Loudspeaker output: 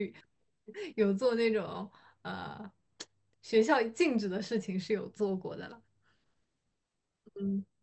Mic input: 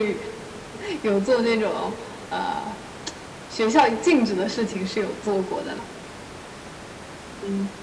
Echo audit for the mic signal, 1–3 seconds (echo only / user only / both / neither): echo only